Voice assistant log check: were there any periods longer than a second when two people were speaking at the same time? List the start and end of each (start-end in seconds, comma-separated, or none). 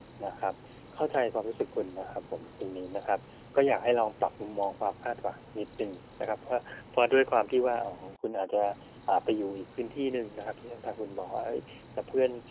none